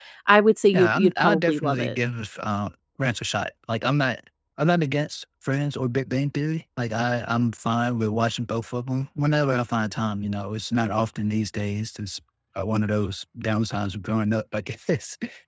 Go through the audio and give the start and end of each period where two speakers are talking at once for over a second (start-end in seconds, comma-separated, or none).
0.7-2.0